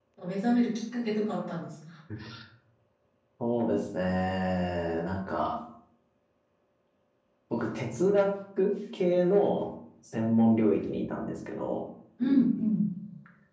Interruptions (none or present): none